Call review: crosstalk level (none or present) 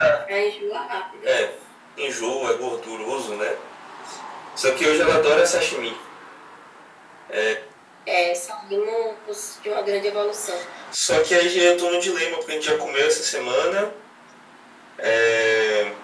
none